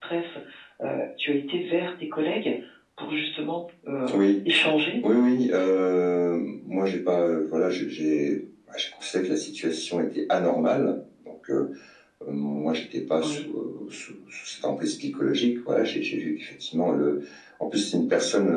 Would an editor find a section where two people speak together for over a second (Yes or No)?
No